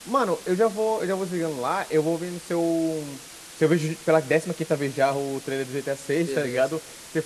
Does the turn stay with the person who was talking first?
Yes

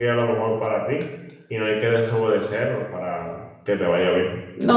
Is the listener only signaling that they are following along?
No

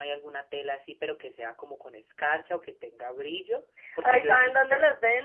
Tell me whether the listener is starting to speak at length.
Yes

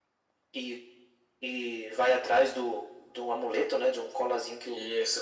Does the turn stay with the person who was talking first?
No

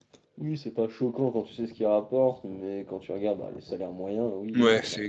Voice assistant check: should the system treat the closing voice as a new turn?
Yes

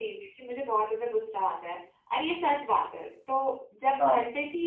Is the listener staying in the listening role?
Yes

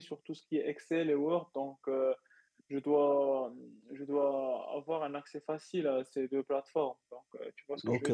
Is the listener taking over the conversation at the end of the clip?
Yes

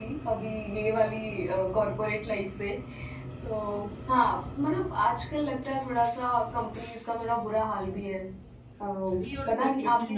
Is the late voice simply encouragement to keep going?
No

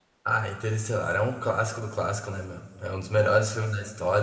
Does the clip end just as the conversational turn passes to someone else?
No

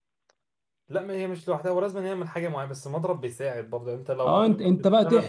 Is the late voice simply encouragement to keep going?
No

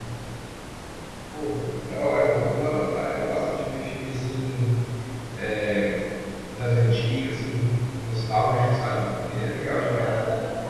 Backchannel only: No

